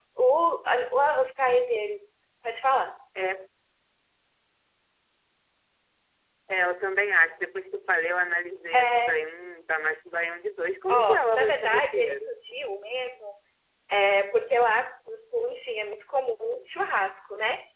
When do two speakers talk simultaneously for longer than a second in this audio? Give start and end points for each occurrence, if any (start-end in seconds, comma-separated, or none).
10.9-12.3